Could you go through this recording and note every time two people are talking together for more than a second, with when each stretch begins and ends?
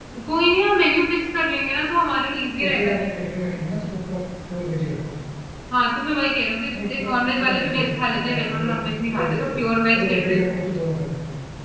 6.8-10.4

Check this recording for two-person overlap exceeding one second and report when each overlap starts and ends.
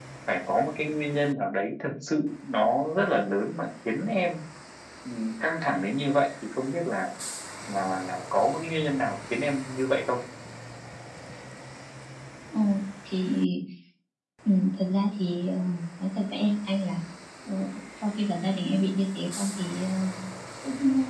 none

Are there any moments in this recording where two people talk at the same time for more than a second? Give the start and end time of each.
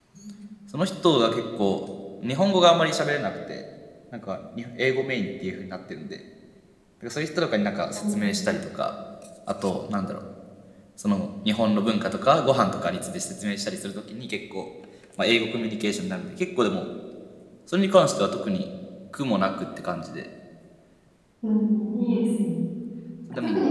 none

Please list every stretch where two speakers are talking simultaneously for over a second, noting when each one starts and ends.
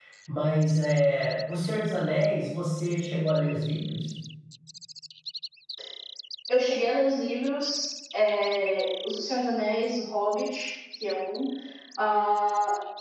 none

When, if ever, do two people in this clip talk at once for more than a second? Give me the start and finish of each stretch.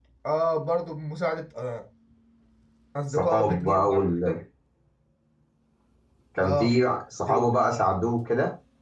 3.1-4.4

